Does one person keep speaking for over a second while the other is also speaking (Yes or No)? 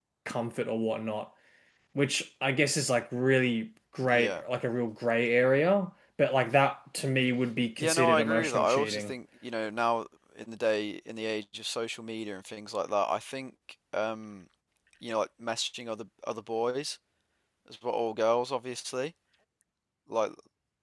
Yes